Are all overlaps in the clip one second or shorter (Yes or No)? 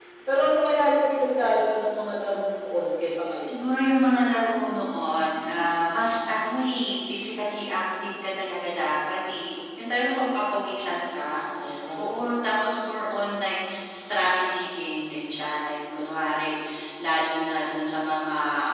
Yes